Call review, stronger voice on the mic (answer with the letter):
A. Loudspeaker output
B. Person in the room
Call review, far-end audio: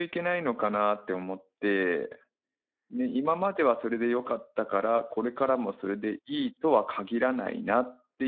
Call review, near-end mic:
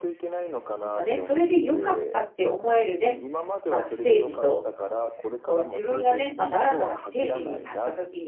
B